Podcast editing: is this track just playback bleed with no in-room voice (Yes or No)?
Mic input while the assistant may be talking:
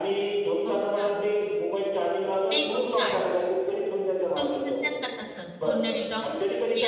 No